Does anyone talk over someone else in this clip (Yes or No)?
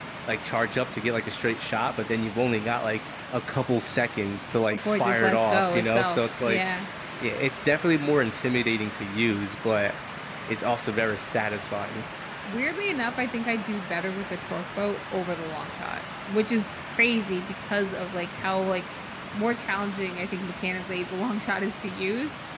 Yes